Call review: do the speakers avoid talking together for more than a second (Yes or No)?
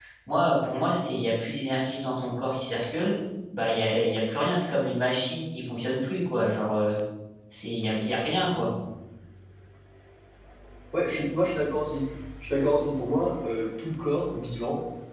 Yes